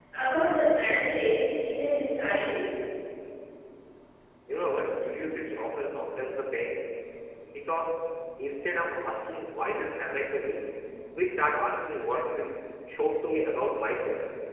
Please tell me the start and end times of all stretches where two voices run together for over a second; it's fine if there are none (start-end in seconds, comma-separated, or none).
none